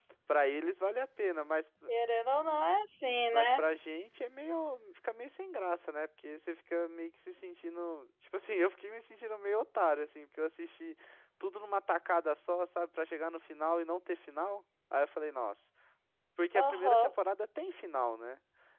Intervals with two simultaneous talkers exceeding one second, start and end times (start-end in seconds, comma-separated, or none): none